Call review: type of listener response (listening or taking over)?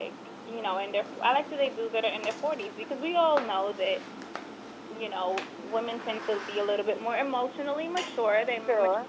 listening